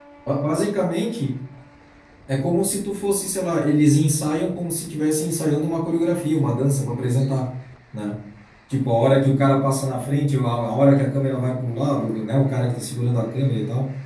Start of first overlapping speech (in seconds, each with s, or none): none